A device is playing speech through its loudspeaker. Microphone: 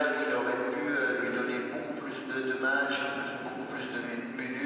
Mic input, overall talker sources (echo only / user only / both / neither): echo only